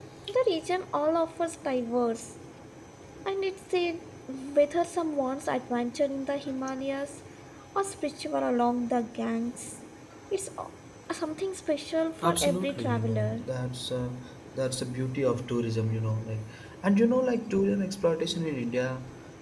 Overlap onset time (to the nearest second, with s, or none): 12 s